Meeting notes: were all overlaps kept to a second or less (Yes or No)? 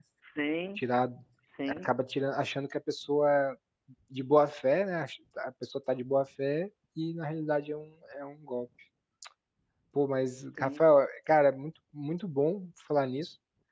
Yes